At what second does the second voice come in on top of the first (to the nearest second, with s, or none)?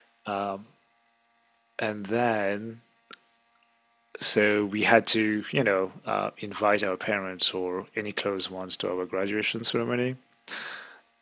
none